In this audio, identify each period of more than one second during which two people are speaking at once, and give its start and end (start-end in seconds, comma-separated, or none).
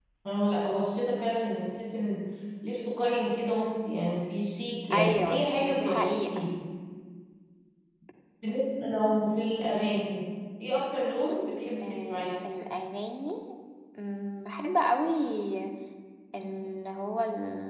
4.9-6.4